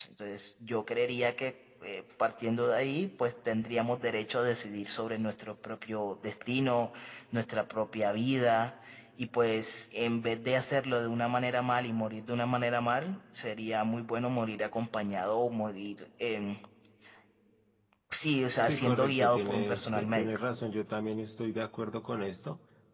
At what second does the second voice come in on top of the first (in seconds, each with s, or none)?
18.6 s